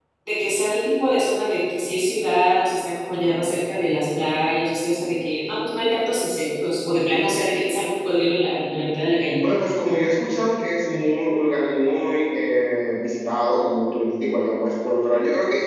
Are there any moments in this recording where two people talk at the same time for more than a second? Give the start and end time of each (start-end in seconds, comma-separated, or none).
none